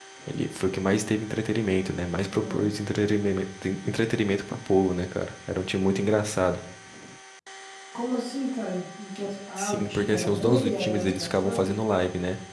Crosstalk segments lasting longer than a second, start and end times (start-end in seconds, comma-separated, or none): 9.6-11.7